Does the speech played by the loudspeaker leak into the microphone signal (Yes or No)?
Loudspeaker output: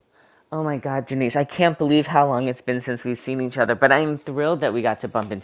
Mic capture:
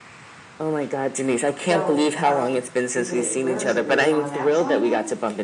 Yes